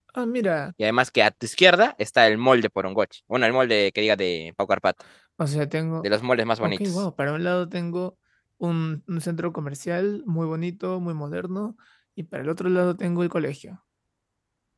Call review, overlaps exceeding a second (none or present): none